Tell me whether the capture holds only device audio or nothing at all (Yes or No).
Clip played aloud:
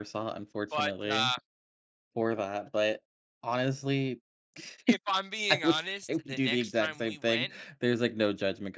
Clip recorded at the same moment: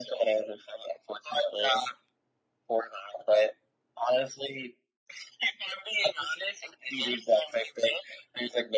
Yes